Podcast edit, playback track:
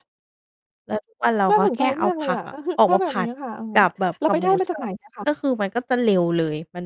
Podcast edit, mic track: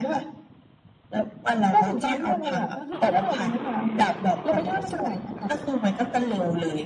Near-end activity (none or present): none